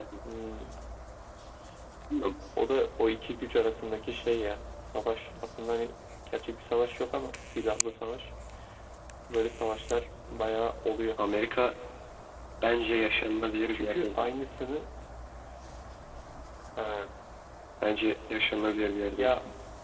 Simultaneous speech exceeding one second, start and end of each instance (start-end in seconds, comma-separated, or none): none